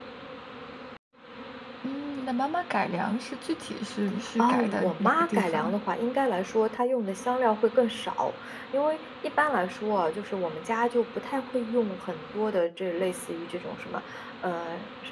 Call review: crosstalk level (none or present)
present